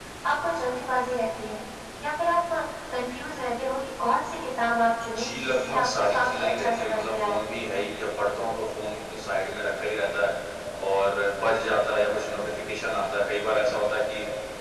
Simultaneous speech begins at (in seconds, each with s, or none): 5.0 s